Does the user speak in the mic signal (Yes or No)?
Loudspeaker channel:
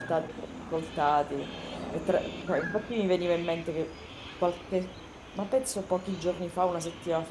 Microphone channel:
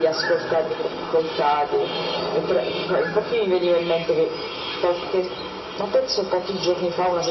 No